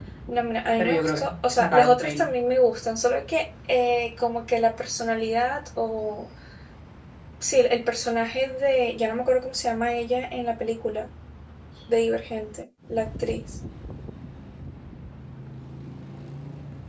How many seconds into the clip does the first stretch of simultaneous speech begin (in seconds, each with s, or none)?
0.8 s